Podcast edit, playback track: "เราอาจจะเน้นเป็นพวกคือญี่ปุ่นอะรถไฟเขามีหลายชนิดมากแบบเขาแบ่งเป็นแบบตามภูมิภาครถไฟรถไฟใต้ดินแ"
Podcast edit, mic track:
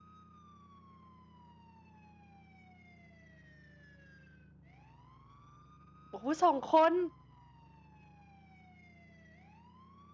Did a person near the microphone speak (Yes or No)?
Yes